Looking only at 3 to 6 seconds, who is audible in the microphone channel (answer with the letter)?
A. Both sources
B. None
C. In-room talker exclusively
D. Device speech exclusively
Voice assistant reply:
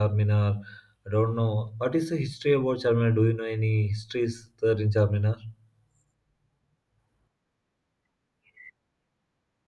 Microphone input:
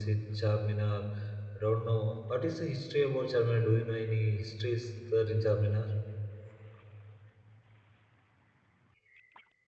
D